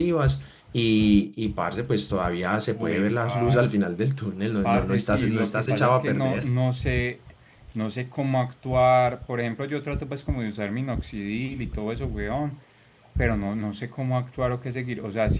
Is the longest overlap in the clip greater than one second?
Yes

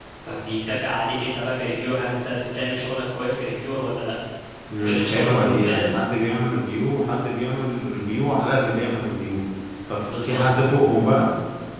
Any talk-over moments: Yes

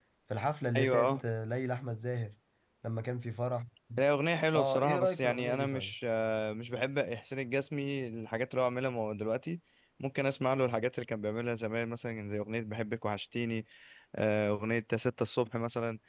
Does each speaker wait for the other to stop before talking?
No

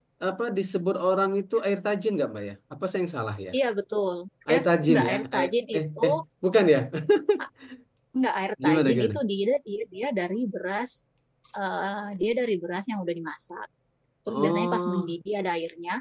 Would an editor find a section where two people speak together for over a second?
Yes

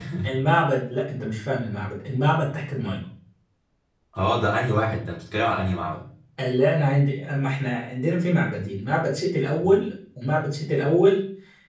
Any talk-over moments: No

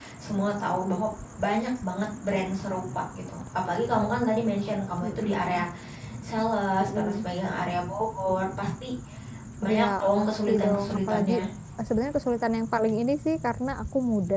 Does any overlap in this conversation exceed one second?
Yes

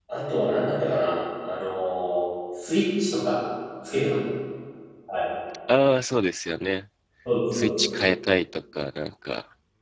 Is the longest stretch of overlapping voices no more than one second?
Yes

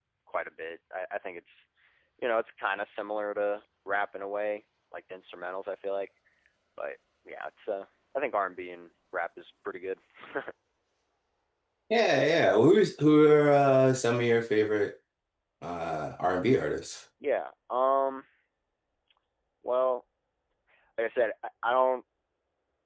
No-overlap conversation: Yes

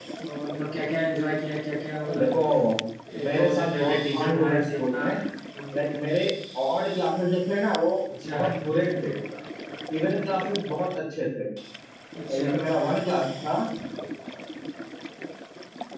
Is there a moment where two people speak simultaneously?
Yes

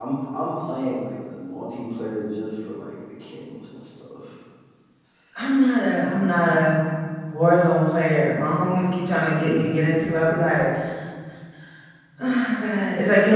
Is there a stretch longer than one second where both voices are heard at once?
No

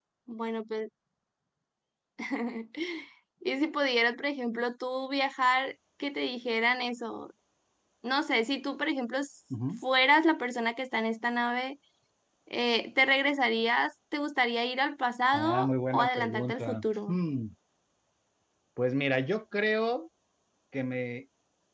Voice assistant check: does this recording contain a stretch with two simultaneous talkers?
Yes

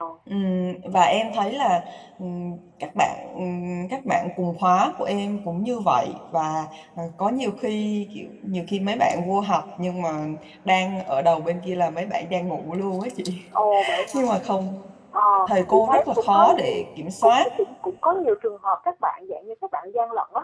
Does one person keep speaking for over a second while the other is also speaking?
Yes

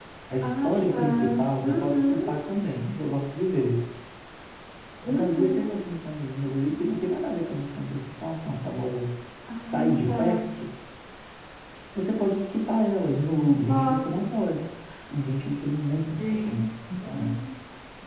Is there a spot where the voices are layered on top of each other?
Yes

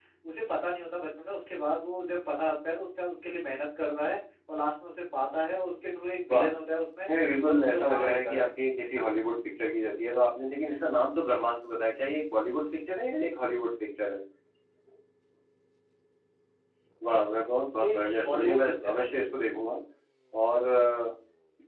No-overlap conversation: No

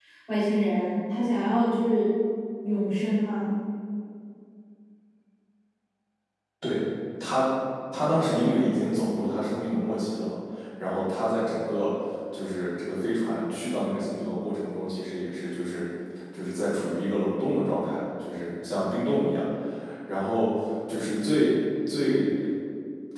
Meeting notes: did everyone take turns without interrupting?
Yes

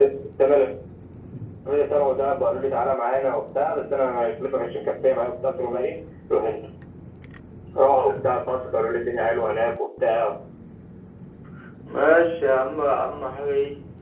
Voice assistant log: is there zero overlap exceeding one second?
Yes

